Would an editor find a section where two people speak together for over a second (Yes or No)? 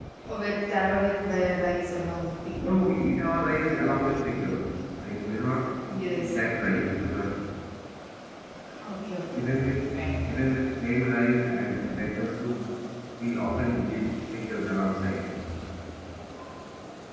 No